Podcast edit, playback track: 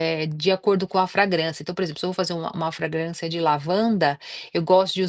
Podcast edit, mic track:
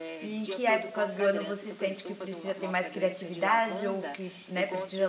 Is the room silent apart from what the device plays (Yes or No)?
No